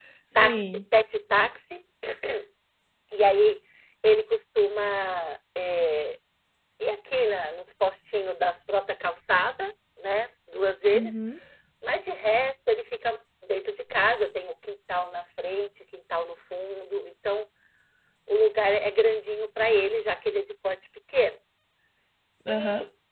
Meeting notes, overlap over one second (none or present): none